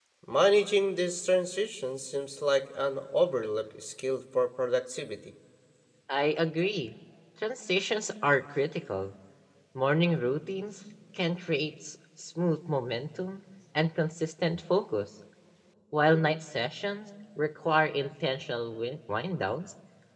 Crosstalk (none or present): none